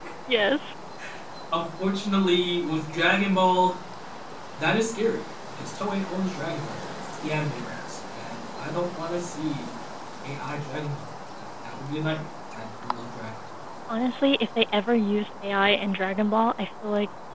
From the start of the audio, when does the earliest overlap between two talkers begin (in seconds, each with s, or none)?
none